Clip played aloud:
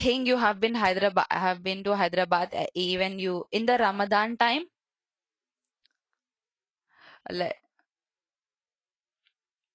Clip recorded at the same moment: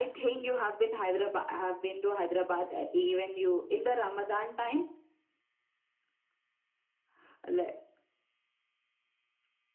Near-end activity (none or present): none